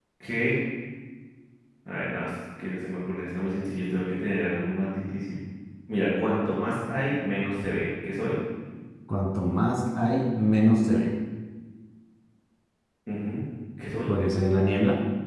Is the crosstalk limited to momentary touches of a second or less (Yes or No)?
Yes